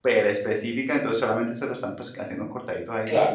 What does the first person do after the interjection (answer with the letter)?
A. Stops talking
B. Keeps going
A